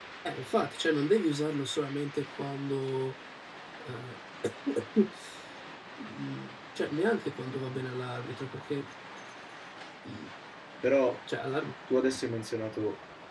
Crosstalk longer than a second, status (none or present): none